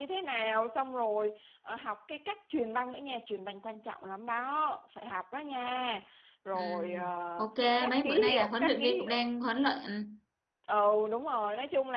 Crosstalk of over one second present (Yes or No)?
Yes